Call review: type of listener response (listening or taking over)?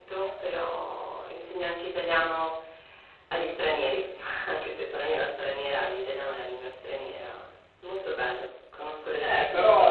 taking over